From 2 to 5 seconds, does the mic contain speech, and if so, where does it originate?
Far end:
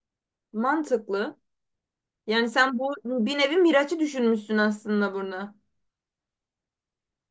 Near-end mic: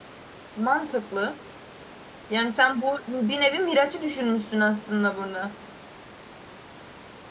echo only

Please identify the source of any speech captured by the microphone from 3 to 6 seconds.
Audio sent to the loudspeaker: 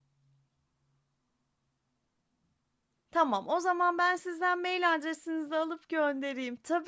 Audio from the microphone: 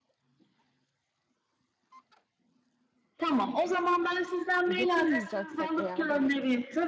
both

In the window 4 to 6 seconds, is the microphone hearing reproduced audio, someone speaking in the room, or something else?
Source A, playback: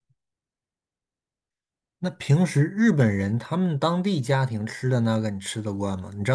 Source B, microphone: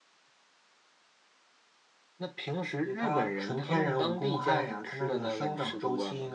both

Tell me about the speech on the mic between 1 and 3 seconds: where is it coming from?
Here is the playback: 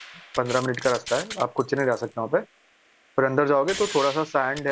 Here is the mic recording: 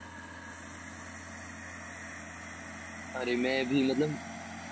neither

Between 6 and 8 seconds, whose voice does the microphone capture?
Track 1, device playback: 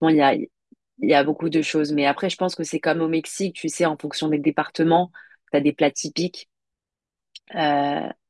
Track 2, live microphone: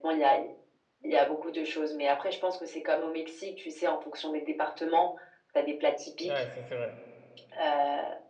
both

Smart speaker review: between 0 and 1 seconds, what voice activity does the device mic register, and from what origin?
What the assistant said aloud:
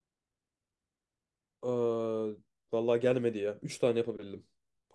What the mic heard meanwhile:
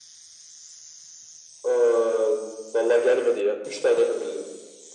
neither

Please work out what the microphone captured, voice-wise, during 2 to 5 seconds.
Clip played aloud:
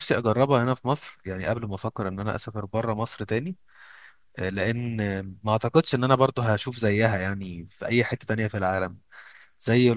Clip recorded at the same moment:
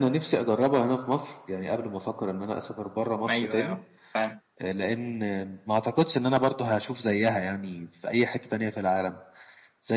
both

